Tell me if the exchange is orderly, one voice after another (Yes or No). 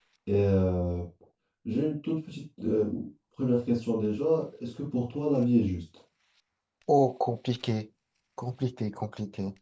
Yes